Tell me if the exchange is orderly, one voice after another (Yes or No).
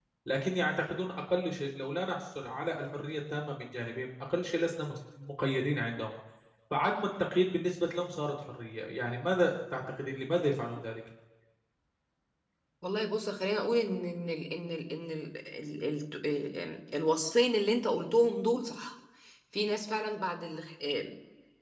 Yes